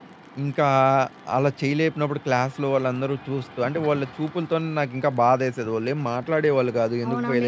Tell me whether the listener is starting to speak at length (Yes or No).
Yes